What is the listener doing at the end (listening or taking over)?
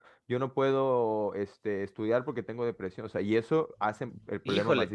taking over